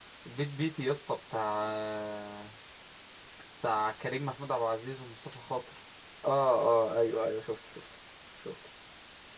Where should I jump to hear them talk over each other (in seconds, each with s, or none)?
none